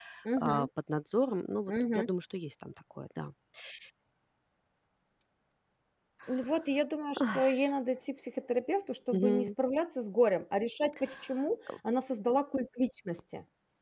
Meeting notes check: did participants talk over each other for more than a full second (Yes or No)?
No